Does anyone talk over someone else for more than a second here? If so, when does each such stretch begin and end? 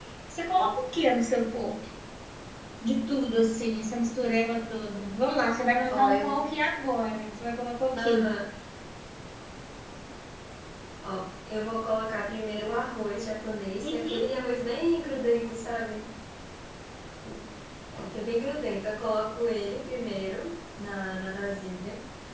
none

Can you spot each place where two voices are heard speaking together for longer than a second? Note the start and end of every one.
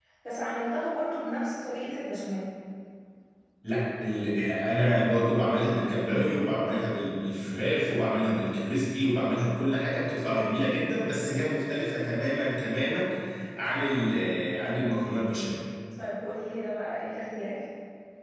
none

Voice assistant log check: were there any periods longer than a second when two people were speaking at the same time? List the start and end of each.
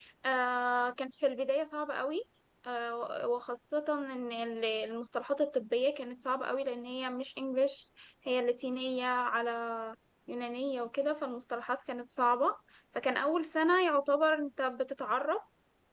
none

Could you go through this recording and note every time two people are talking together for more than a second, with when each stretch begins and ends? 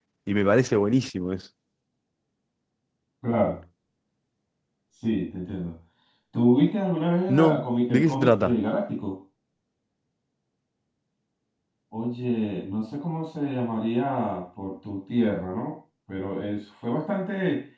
7.3-8.5

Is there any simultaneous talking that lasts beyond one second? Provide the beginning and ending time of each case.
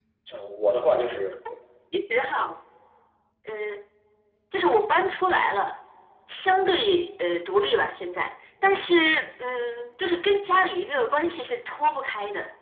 none

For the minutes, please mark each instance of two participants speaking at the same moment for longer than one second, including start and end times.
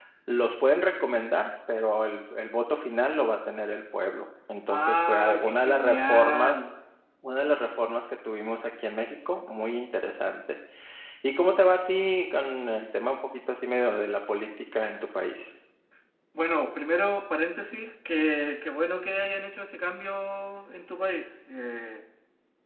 4.7-6.6

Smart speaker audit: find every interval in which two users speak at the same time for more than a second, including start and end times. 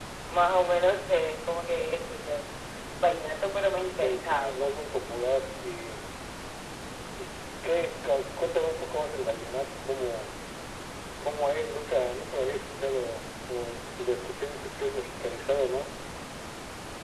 4.0-5.3

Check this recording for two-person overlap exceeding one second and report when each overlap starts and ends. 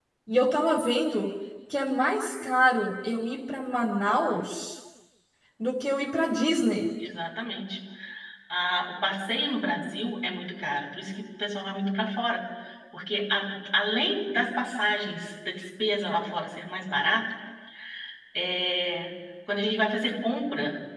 none

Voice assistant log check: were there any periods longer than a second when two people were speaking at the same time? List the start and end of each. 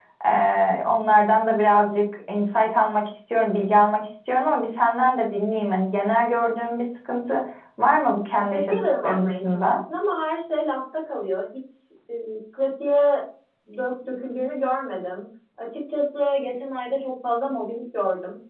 8.3-9.8

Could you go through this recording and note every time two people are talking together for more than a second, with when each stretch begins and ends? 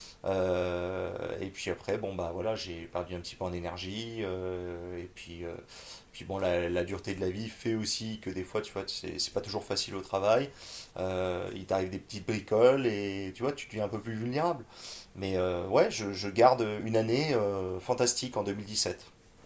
none

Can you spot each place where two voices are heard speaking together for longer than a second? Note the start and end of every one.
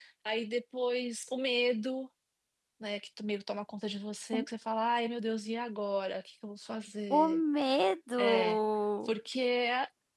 none

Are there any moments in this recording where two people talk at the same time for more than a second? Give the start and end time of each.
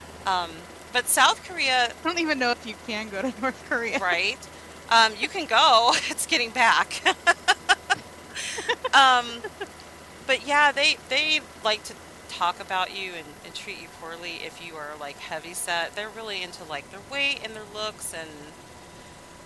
none

